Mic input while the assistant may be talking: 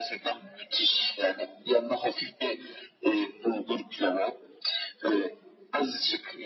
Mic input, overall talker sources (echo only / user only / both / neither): echo only